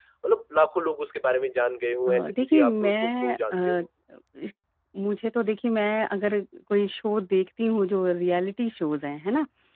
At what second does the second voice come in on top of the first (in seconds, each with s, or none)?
2.1 s